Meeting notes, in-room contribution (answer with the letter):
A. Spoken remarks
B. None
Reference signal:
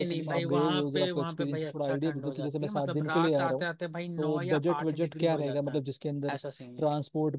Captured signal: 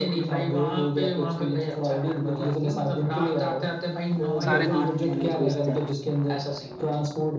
A